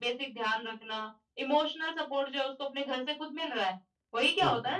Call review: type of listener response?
listening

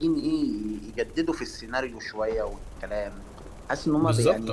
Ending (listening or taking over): taking over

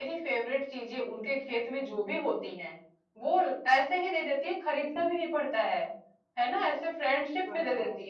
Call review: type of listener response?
listening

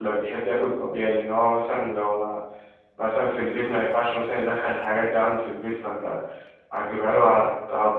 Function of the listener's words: listening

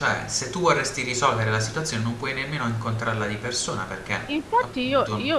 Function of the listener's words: taking over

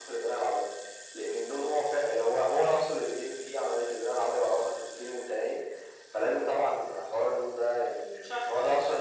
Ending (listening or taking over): listening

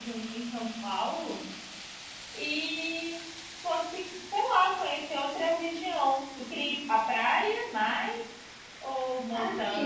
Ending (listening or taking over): taking over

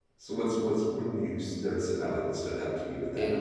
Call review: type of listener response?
taking over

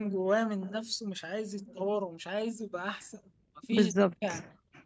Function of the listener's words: listening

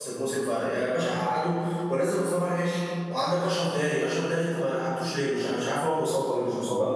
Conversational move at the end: taking over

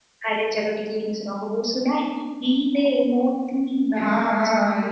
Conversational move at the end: taking over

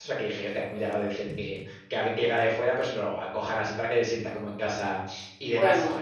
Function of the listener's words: taking over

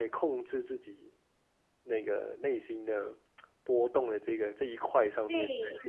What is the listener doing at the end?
taking over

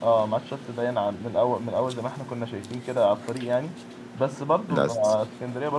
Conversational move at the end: listening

